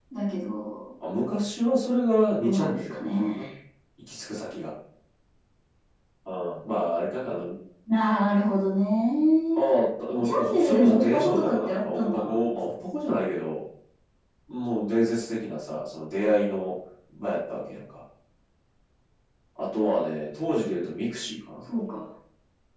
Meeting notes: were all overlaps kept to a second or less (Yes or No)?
No